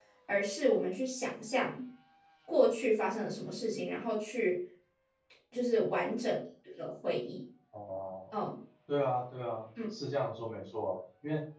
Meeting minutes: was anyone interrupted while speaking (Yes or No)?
No